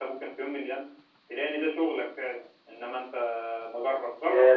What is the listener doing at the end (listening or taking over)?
taking over